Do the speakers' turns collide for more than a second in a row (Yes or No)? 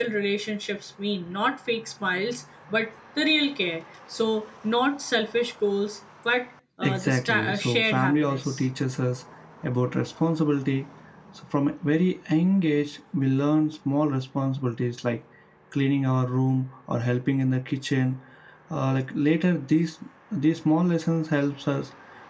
Yes